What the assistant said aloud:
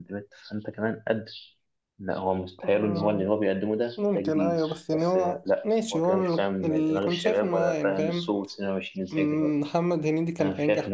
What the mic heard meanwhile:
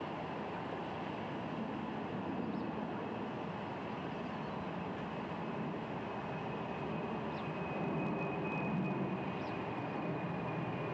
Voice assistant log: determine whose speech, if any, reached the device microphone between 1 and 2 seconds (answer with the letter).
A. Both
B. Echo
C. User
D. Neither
D